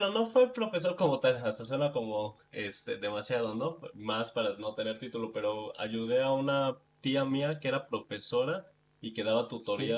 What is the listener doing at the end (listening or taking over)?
listening